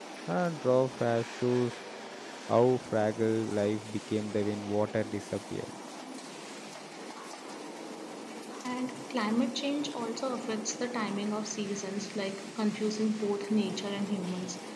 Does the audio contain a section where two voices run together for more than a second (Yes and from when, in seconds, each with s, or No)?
No